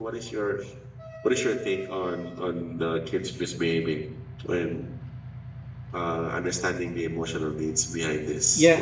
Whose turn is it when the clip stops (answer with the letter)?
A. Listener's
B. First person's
A